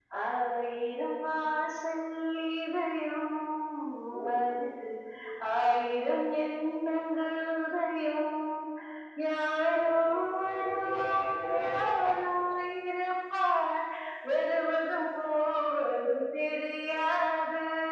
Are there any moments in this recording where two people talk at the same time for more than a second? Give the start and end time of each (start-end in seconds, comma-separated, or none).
10.4-12.1